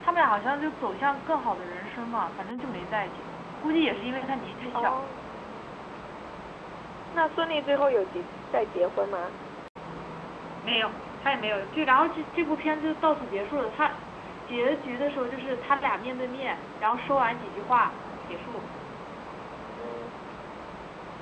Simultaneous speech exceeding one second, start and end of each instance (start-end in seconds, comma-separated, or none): none